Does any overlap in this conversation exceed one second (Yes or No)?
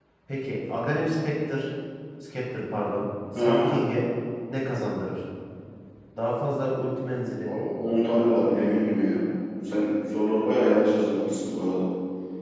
No